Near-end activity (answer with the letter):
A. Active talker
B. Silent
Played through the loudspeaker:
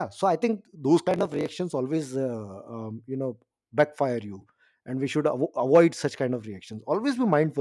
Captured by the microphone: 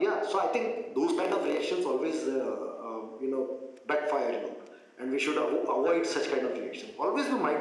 B